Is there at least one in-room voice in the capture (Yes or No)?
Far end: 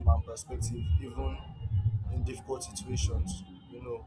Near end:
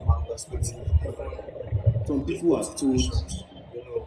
Yes